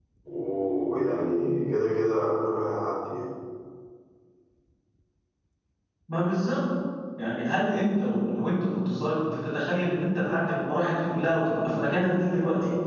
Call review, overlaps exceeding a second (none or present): none